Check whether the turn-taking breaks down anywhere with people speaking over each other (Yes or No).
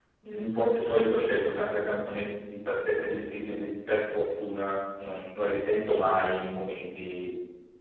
No